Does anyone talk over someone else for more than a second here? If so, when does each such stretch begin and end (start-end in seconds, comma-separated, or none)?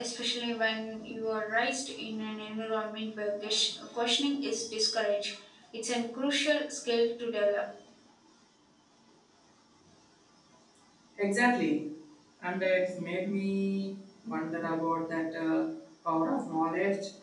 none